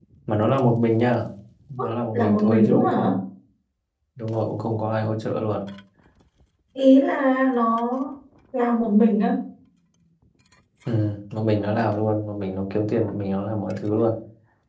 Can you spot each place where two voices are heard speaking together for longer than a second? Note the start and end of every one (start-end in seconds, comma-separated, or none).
1.8-3.1